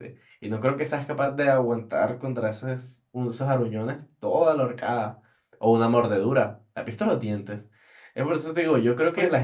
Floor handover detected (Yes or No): Yes